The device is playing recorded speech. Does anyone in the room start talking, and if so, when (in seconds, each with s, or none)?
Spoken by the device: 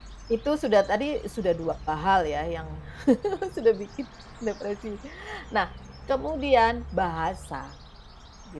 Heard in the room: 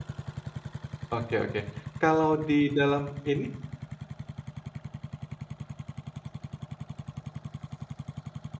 1.1 s